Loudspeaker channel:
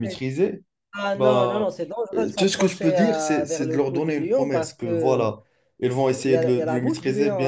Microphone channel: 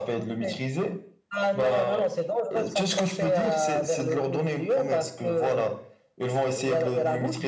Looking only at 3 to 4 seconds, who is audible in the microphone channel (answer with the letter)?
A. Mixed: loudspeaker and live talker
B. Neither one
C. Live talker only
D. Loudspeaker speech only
D